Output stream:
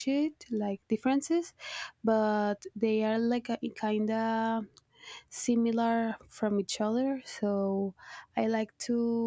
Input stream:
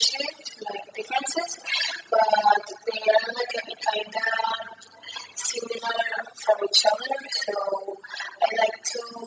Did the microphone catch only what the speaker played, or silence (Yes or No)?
Yes